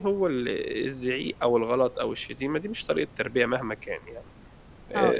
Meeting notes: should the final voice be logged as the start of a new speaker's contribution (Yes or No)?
Yes